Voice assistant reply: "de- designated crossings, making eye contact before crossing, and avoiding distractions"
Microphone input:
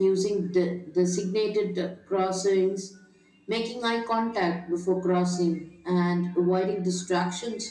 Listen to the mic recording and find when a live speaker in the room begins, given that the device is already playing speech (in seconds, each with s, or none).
none